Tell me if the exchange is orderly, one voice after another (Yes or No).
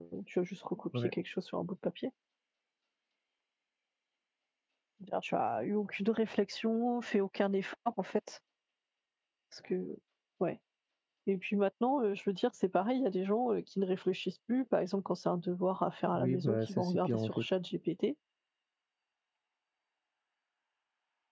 No